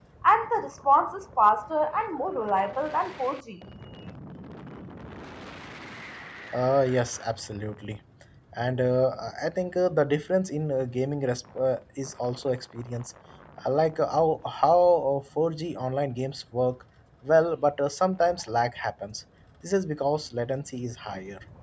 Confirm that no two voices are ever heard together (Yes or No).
Yes